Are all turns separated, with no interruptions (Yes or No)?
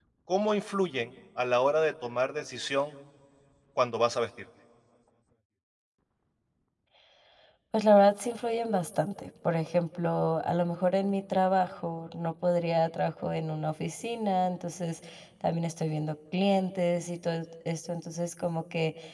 Yes